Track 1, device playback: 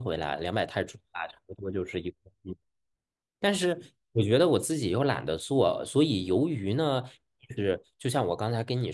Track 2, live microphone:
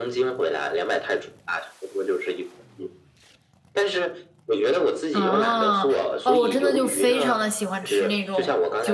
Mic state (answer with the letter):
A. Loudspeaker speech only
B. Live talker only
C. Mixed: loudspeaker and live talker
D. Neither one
C